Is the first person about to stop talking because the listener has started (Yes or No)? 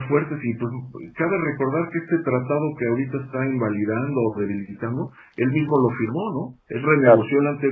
No